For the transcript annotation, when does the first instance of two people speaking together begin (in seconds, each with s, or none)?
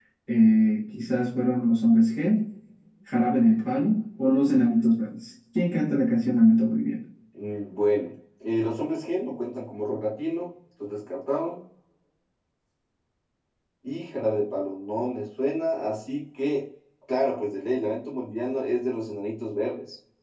none